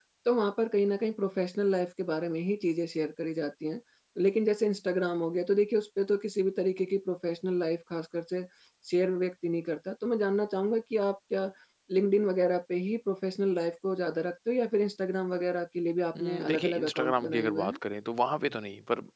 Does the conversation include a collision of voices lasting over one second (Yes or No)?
Yes